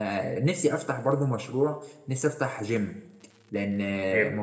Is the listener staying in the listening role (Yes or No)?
Yes